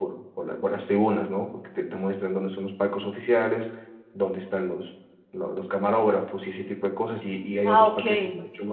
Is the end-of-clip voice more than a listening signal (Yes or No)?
No